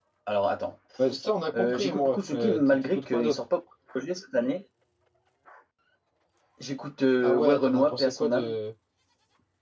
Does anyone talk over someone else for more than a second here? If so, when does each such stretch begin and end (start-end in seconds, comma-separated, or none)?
1.6-3.4, 7.2-8.5